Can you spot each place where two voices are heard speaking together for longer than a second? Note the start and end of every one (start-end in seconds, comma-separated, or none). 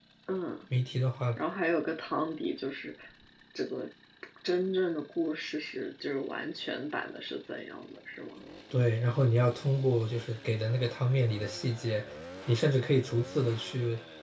none